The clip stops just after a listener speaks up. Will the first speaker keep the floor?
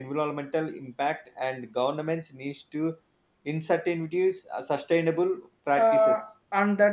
No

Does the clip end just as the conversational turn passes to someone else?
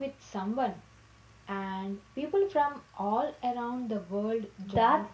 Yes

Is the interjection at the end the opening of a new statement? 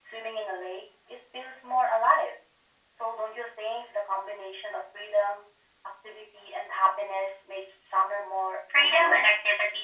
Yes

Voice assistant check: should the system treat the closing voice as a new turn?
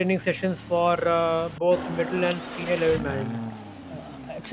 Yes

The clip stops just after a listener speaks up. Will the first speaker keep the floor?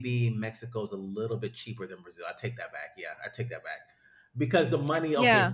Yes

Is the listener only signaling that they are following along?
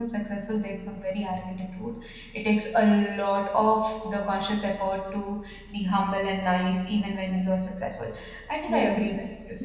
No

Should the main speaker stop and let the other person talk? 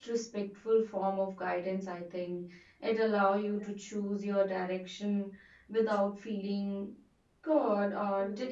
No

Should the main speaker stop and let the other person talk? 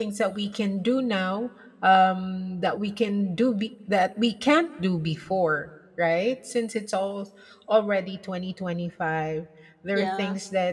No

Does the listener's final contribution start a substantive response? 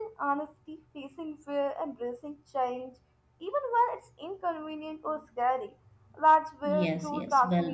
Yes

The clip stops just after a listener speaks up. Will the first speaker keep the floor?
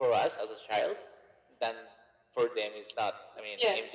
Yes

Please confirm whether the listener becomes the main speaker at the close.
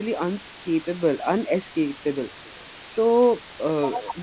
No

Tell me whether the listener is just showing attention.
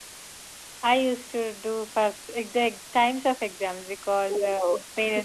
Yes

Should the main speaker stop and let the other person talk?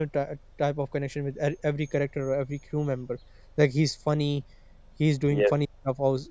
No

